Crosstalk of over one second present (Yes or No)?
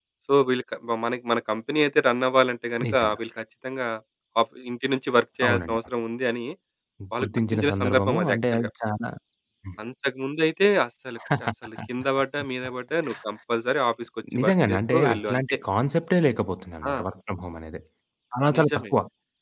Yes